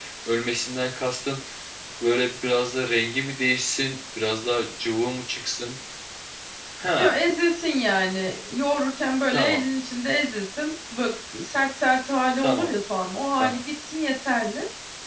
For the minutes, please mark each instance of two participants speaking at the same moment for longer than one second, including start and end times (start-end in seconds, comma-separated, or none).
none